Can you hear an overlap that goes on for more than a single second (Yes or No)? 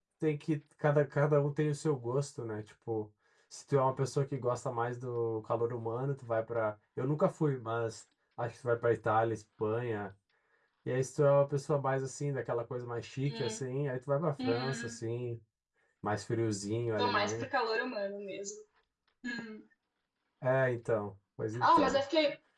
No